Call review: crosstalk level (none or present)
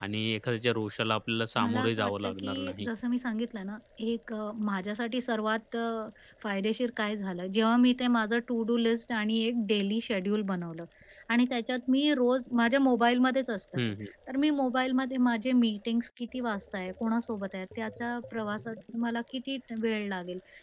present